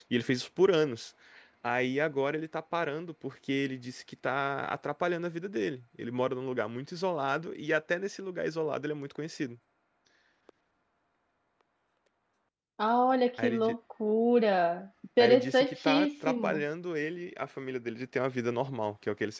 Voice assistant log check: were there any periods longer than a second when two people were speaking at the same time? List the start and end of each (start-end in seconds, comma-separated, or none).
15.2-16.6